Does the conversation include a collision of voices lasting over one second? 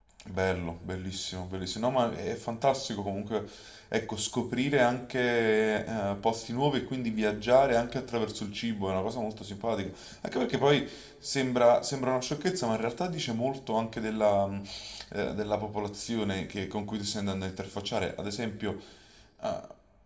No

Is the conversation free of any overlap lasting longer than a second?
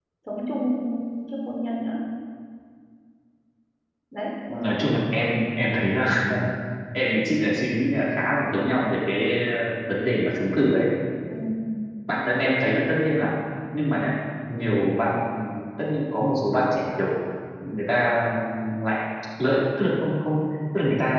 Yes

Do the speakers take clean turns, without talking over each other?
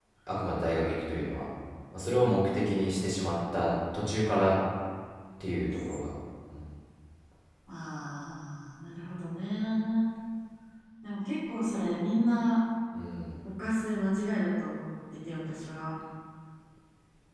Yes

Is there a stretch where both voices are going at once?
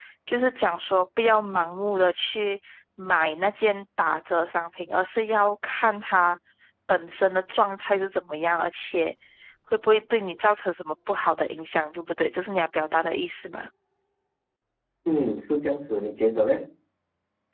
No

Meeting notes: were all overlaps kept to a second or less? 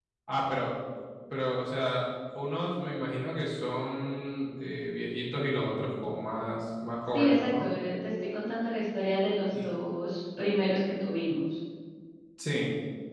Yes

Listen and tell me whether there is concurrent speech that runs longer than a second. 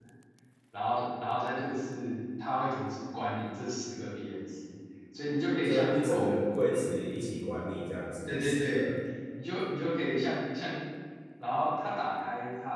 Yes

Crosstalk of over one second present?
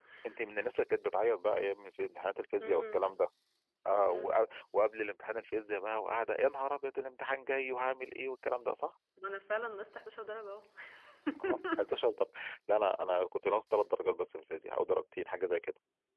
No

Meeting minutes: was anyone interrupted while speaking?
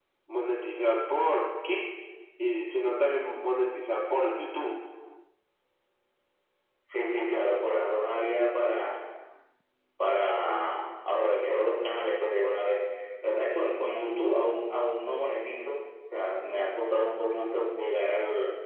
No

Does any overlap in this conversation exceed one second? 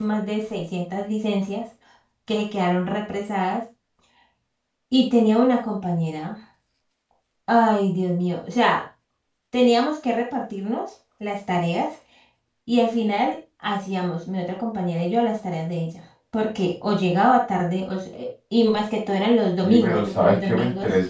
Yes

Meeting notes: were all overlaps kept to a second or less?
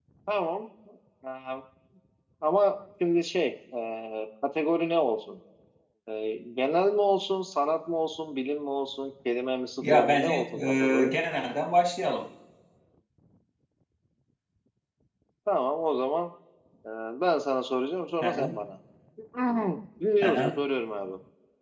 No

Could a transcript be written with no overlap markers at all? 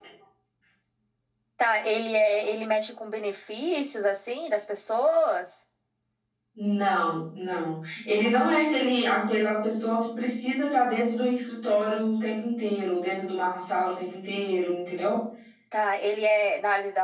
Yes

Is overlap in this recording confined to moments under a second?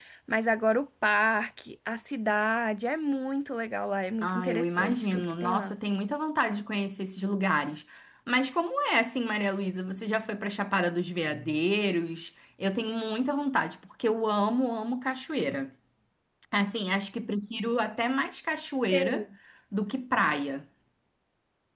No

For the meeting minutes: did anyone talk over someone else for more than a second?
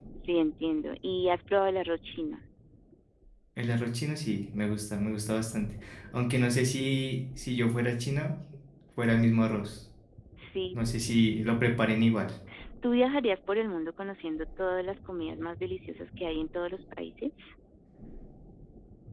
No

